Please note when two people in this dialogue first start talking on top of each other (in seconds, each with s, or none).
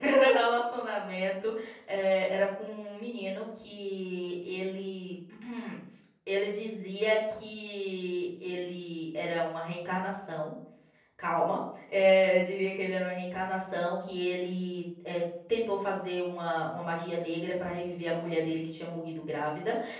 none